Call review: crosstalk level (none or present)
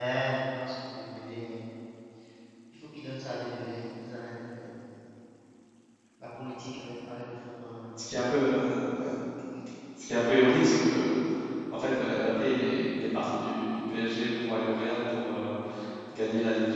none